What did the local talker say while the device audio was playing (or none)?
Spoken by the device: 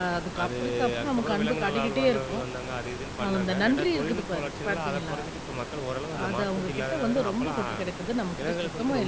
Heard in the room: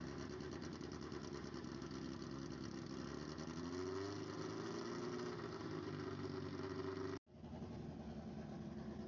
none